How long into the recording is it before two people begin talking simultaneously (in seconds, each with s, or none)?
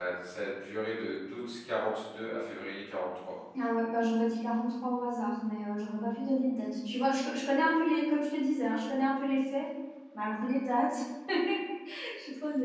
none